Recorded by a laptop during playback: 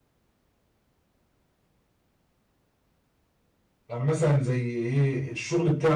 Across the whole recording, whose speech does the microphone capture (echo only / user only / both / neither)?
user only